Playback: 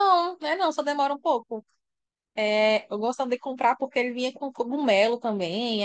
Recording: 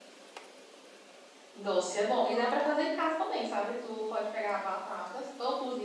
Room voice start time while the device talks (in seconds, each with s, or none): 1.5 s